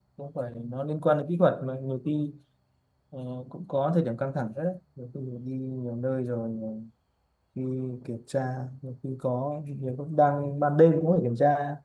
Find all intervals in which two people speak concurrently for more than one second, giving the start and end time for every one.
none

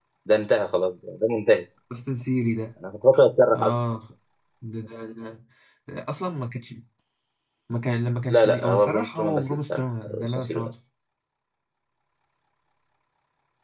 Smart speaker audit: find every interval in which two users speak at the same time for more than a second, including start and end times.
8.3-10.7

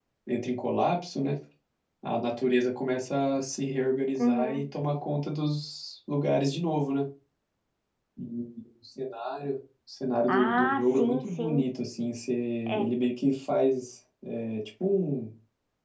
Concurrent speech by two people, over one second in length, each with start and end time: 10.3-11.7

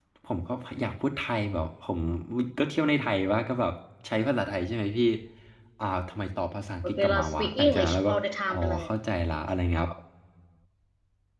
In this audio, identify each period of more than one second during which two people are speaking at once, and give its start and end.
6.8-8.1

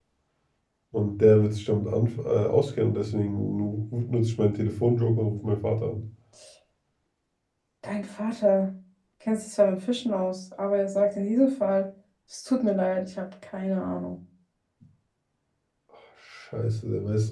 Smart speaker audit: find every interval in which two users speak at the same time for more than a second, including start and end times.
none

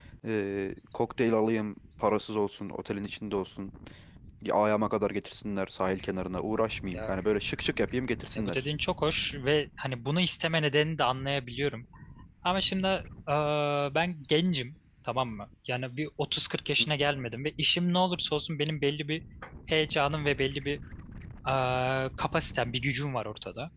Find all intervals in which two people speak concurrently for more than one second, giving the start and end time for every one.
none

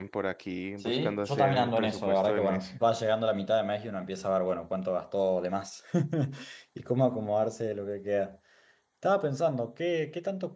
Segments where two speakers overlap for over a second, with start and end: 0.8-2.7

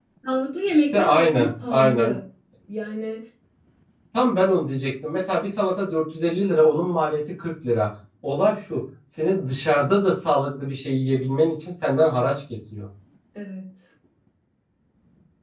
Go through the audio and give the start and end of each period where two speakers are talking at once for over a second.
0.7-2.1

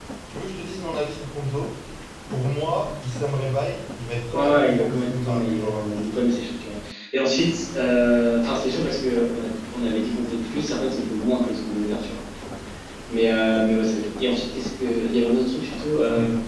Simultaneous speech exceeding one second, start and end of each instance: 4.3-6.2

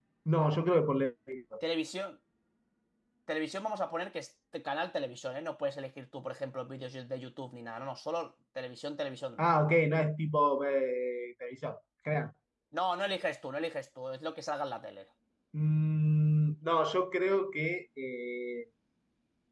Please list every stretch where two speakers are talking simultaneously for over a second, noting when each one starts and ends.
none

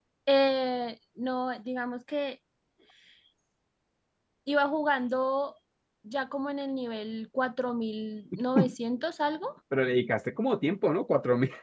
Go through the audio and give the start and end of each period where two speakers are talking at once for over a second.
none

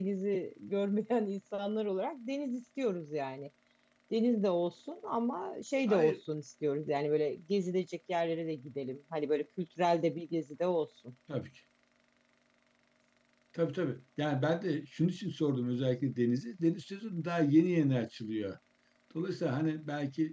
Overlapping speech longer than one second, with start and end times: none

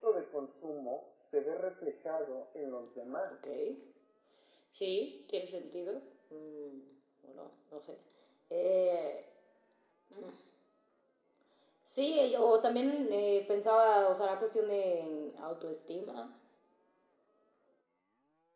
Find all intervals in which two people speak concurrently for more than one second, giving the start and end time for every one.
none

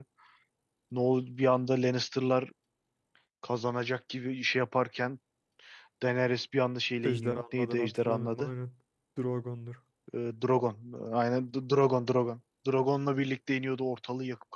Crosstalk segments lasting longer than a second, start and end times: 7.0-8.5

